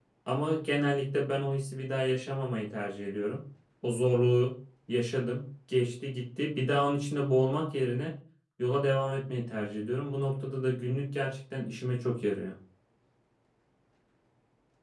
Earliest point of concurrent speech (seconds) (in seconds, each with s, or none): none